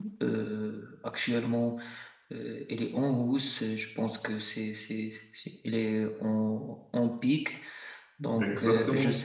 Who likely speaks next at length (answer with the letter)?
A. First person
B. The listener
A